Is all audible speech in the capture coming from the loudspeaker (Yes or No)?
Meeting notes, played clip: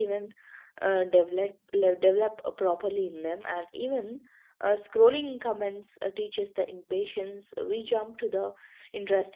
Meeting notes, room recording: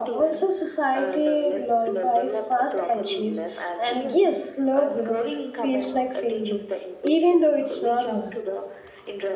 No